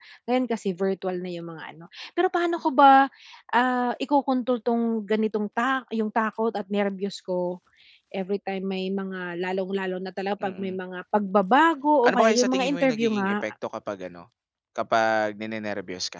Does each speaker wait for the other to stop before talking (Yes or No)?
No